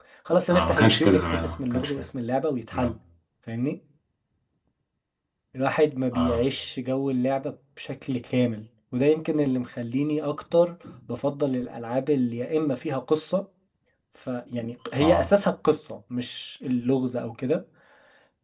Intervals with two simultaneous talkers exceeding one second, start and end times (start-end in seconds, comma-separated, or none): 0.5-2.0